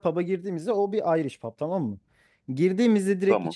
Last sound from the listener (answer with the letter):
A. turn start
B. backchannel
B